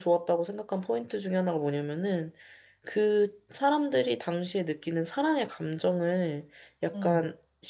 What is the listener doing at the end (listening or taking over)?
listening